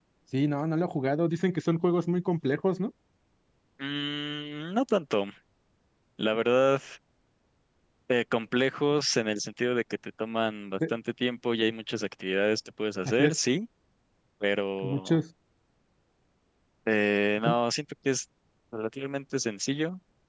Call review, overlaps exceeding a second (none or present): none